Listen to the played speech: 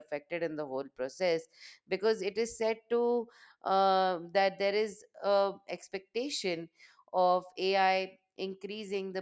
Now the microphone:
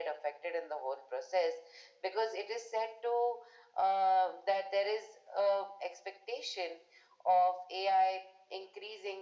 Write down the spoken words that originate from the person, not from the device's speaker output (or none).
none